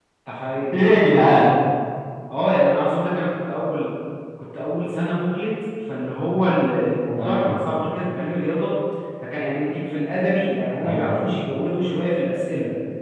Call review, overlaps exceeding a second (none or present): none